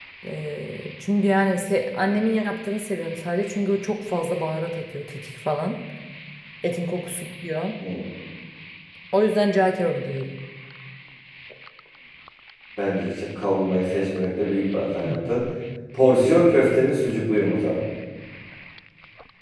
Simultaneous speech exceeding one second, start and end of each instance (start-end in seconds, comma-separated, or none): none